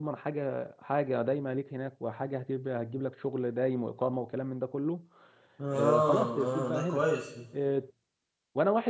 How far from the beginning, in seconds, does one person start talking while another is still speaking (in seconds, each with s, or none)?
5.7 s